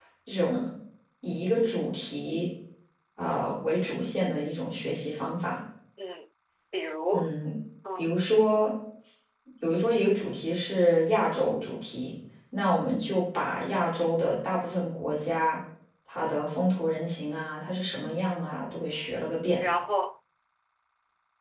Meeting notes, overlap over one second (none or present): none